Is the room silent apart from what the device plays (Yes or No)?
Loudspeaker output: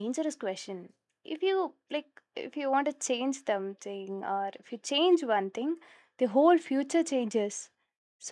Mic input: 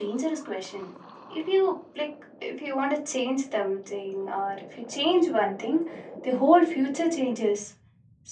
Yes